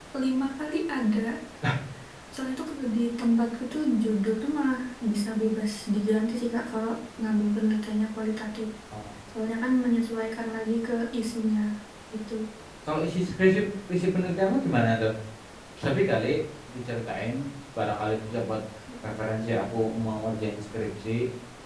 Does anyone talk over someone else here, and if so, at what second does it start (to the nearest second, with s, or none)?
none